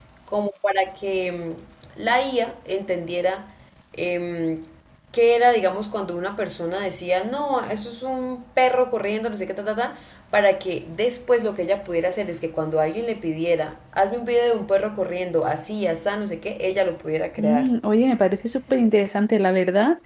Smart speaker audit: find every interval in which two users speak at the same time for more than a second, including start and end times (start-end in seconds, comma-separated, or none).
none